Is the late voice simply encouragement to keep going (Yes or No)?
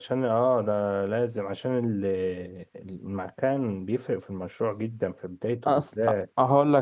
No